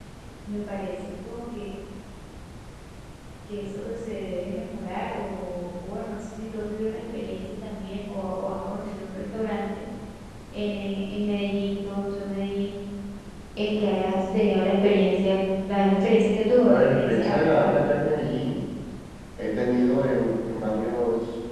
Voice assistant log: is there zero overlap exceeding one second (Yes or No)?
No